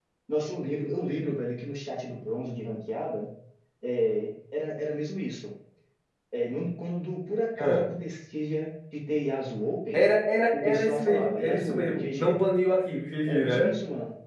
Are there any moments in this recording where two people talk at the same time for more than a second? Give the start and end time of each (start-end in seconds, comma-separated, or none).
10.6-12.4